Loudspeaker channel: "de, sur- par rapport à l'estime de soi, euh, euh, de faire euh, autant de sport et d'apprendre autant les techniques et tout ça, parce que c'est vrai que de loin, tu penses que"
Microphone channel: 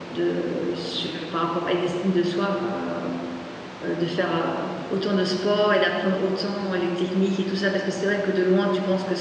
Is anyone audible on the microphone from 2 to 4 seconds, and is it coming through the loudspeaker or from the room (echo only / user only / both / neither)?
echo only